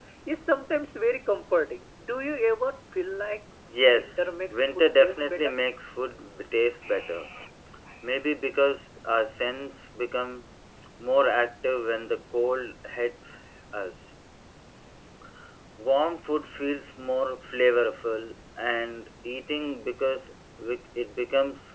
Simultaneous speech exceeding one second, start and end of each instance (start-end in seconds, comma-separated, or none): 3.9-5.5